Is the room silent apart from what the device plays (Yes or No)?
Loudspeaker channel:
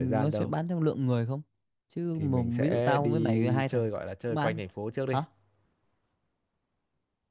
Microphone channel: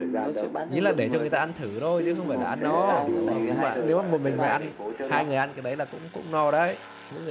No